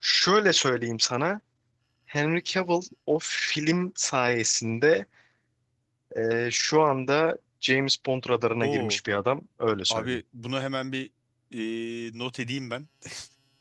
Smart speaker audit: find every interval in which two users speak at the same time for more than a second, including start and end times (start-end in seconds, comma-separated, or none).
none